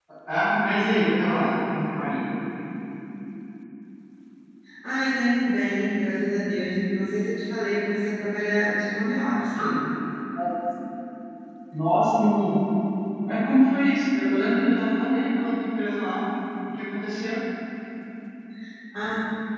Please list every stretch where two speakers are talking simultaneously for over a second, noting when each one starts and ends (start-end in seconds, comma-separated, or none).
none